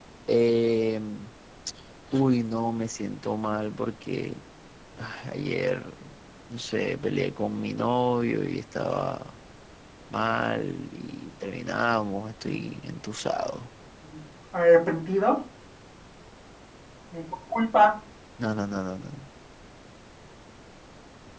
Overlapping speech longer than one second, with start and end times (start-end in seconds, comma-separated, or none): none